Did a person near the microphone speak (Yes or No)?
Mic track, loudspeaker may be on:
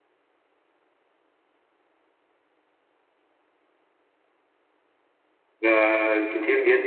Yes